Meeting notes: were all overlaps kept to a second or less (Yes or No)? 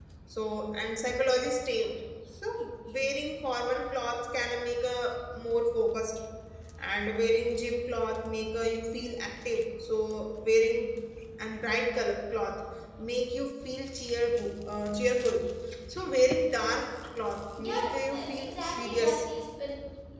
No